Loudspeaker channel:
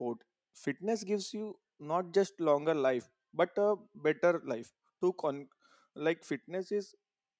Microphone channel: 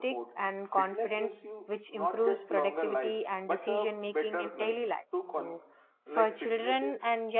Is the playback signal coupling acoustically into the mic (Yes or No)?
Yes